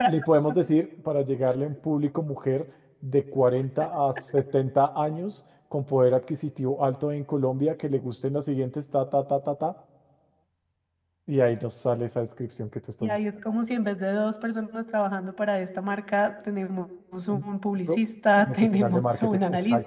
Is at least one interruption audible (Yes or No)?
Yes